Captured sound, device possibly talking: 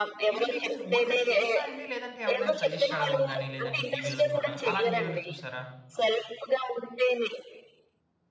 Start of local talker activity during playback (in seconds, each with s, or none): 0.3 s